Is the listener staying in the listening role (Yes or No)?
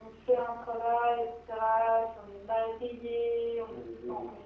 Yes